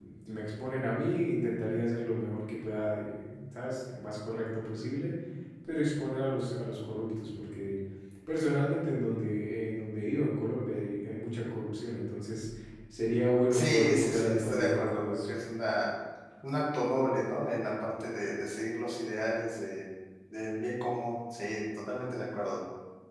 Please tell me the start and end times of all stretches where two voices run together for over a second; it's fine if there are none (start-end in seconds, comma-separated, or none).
13.5-15.3